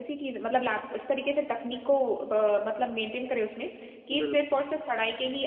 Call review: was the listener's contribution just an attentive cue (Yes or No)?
Yes